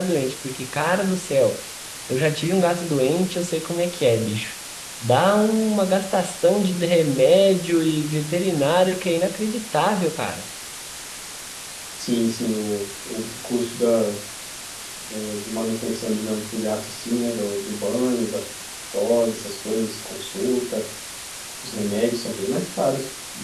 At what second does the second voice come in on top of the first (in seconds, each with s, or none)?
none